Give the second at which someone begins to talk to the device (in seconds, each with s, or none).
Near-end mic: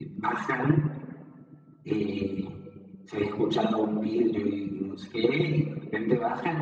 none